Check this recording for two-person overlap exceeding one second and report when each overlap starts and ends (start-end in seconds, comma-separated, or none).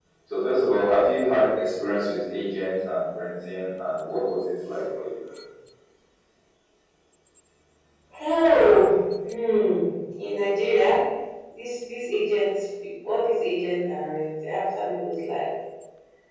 none